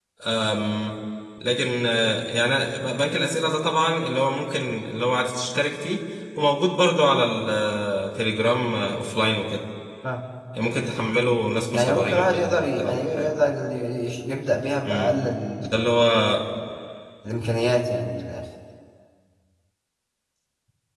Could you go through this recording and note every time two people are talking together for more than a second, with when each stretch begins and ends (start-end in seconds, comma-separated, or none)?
11.7-13.3